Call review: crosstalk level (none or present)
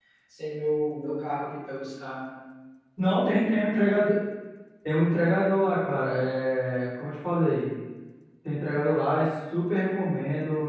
none